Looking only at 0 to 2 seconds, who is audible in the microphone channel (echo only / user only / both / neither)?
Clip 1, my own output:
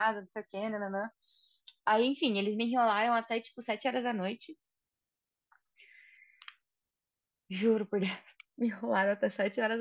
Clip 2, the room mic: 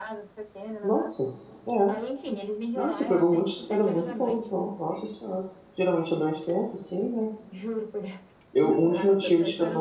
both